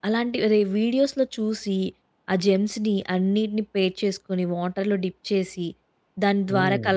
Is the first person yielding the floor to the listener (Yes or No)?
No